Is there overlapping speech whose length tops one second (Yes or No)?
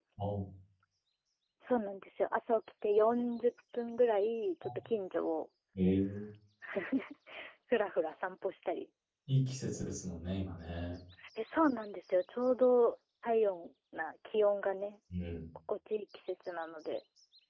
No